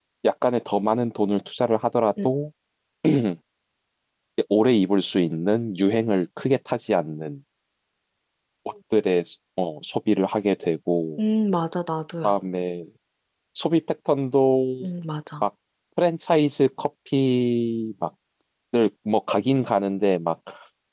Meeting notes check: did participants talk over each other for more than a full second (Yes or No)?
No